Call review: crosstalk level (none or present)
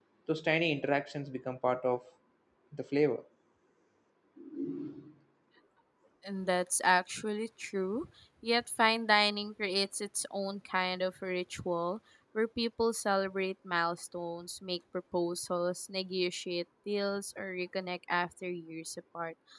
none